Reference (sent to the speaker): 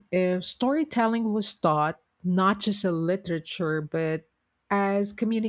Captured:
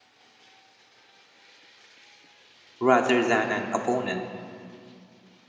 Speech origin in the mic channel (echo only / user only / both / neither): user only